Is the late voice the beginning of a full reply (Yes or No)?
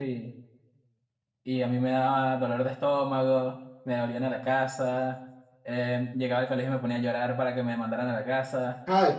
Yes